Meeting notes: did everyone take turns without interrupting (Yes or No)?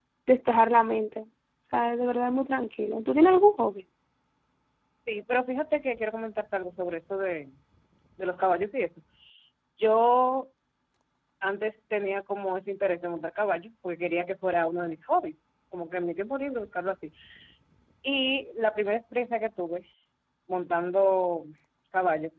Yes